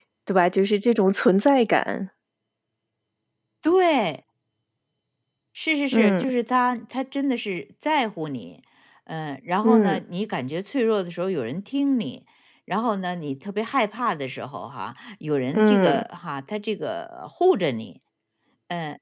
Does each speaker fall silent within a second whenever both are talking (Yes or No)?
Yes